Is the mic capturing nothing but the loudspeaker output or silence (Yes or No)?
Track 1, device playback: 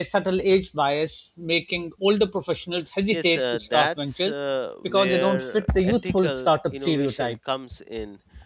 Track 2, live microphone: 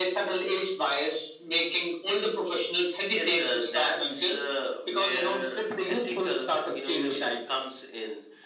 Yes